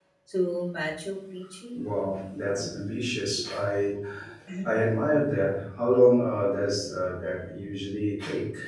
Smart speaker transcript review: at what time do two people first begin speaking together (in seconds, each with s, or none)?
none